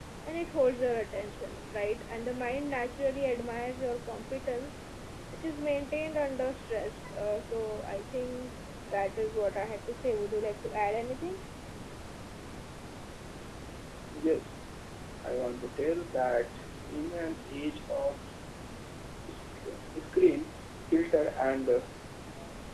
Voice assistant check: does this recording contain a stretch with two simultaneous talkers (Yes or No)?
No